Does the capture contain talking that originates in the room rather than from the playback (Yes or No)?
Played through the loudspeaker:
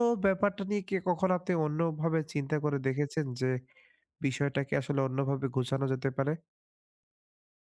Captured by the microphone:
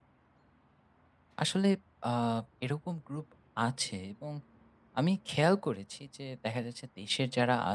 Yes